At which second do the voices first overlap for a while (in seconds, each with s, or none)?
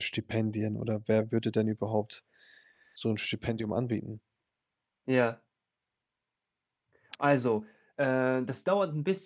none